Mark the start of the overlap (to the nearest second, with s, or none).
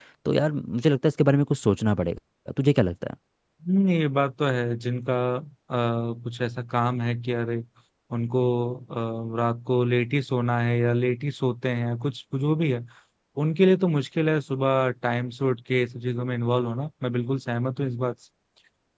none